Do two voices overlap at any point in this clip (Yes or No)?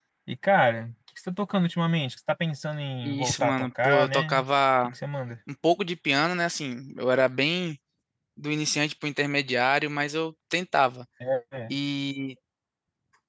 Yes